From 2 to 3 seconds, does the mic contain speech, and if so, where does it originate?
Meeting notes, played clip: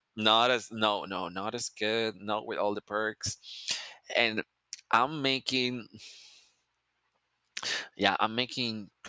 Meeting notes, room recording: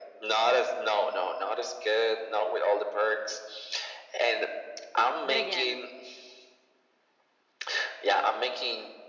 echo only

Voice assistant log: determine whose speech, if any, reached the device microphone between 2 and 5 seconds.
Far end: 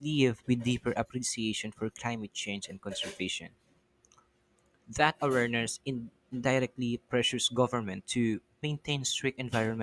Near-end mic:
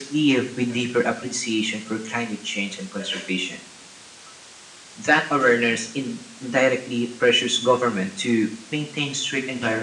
echo only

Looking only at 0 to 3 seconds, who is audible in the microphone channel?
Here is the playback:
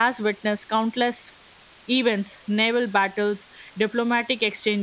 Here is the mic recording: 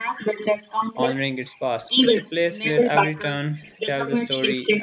both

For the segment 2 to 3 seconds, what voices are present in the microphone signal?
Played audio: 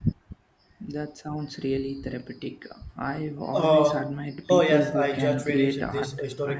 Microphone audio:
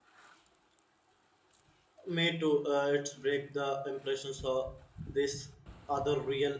user only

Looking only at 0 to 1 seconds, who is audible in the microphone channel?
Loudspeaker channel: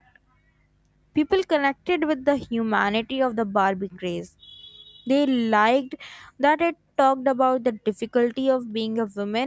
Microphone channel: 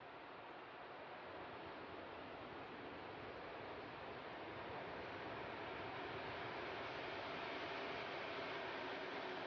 neither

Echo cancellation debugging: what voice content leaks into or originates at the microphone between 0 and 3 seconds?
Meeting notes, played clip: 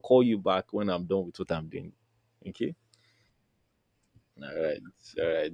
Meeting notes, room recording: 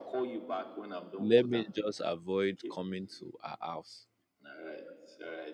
both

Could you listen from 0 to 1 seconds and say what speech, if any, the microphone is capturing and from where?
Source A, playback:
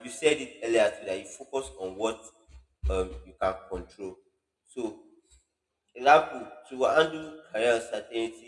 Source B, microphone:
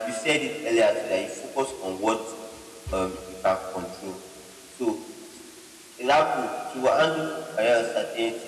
echo only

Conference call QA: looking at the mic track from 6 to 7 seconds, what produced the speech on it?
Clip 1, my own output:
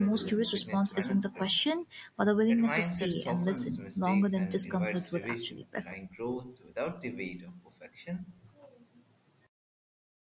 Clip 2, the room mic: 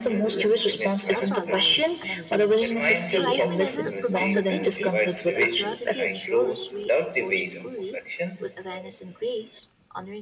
both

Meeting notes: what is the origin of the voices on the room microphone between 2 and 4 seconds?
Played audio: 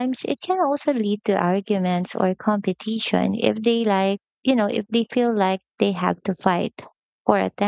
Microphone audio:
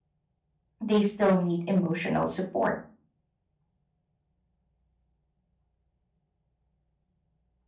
user only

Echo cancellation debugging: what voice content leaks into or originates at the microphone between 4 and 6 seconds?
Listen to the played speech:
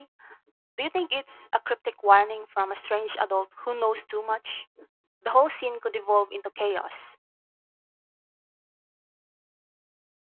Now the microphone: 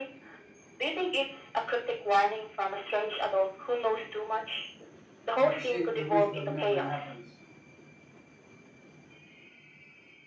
both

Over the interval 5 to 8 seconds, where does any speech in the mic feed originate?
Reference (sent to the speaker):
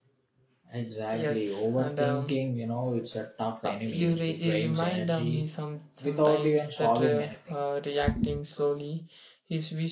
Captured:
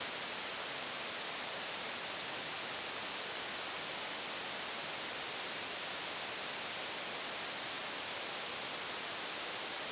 neither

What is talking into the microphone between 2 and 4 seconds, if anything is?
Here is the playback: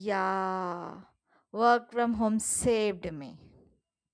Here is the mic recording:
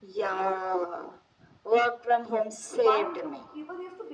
both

